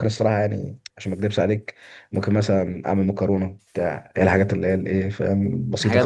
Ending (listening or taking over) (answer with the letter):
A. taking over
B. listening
B